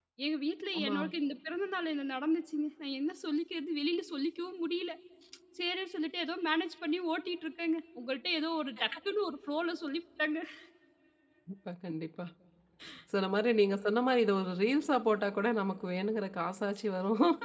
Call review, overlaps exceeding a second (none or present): none